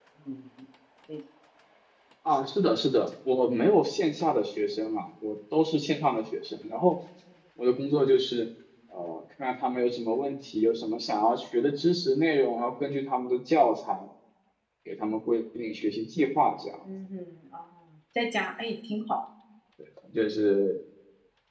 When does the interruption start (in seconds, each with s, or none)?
none